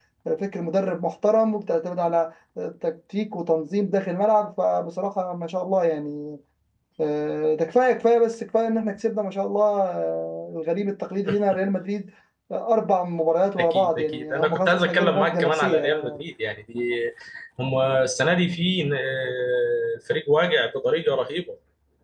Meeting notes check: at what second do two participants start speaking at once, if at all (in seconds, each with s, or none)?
13.6 s